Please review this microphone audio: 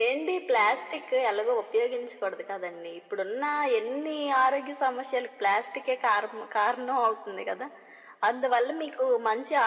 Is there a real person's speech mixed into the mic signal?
No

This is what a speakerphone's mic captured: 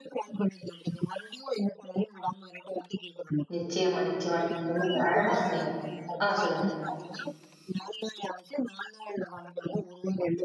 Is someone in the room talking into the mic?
Yes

